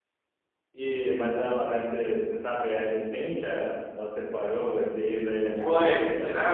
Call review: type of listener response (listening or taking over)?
taking over